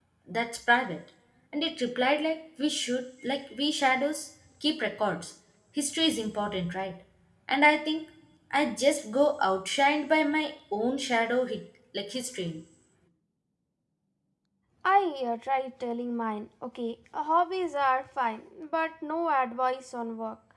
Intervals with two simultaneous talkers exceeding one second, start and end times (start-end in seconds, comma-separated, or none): none